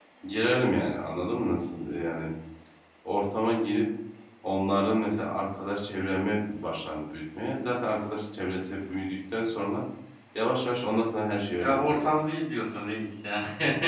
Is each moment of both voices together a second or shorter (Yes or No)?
Yes